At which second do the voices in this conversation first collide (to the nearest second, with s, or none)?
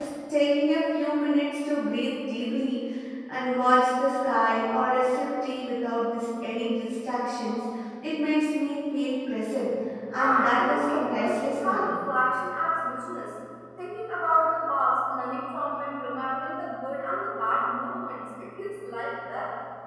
10 s